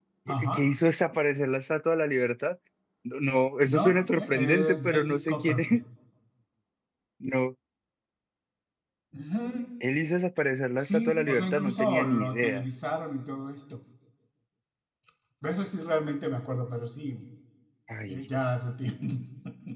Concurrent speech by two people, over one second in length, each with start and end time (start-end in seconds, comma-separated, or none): 3.6-5.8, 10.8-12.6